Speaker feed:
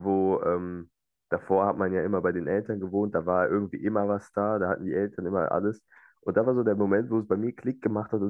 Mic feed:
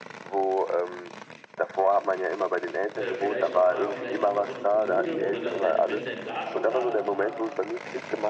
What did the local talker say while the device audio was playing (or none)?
äh, vielleicht noch mal, vielleicht noch mal so eine Kommode, wo du dann deine Wenn-denn-da-Schublade drin hast.